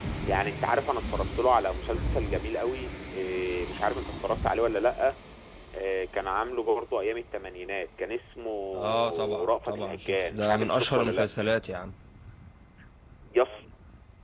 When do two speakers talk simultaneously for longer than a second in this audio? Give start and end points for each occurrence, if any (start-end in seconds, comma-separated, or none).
8.7-11.3